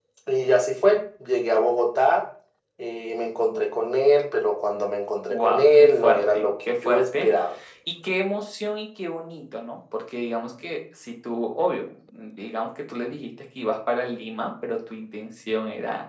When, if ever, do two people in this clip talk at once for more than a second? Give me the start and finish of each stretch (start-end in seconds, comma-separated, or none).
5.3-7.3